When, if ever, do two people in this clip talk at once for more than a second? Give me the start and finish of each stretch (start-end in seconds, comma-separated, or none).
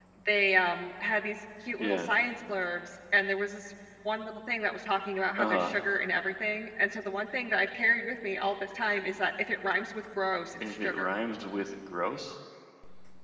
none